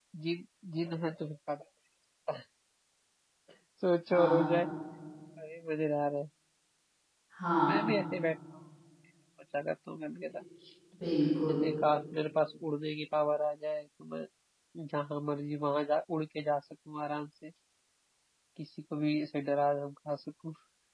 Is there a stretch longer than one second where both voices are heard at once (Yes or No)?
No